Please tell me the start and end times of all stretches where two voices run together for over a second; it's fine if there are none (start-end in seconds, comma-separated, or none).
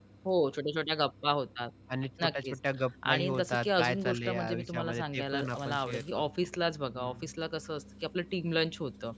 3.1-6.3